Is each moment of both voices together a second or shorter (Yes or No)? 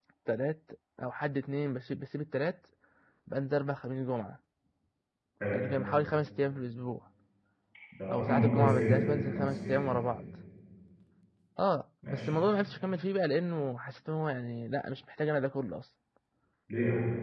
No